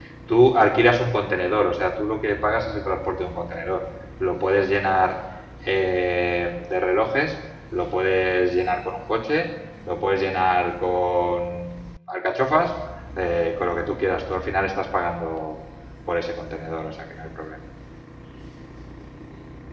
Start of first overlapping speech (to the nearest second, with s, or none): none